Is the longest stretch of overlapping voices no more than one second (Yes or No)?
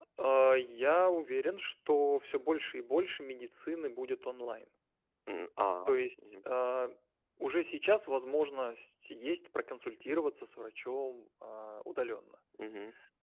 Yes